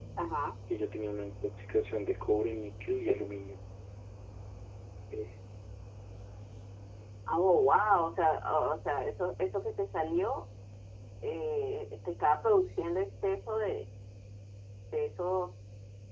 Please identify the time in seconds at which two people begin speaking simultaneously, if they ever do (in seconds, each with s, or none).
none